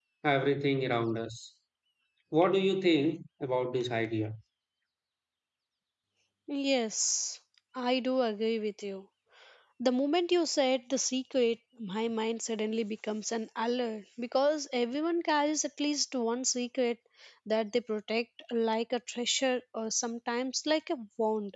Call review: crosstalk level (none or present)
none